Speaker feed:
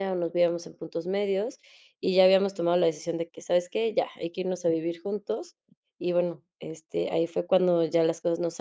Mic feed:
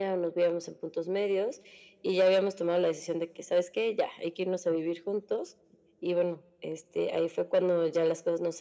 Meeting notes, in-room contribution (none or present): none